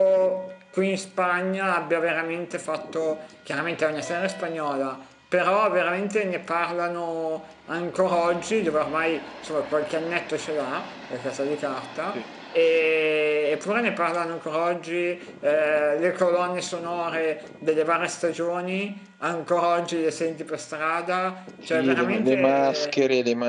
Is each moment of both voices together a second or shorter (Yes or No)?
No